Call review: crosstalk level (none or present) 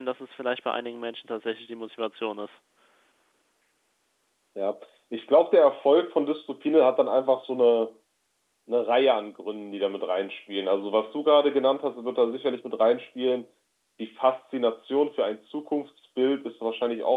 none